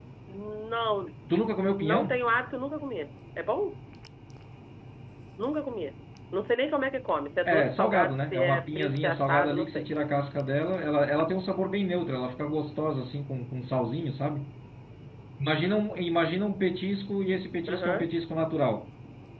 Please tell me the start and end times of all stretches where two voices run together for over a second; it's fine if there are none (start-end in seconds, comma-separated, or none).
7.5-9.9